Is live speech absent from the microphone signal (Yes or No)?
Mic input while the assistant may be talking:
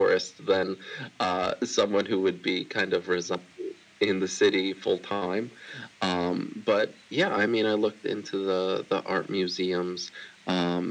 Yes